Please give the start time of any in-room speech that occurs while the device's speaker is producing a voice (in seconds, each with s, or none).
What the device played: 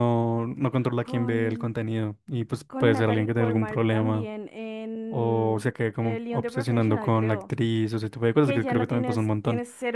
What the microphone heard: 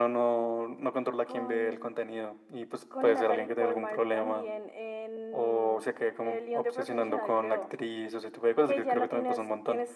none